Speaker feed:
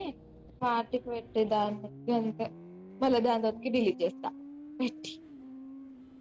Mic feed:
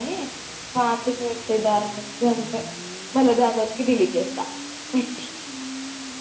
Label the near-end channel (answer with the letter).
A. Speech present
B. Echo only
B